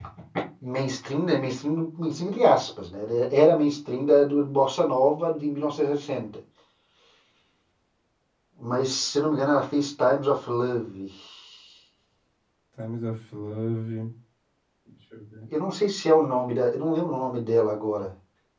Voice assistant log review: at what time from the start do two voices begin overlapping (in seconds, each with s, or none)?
none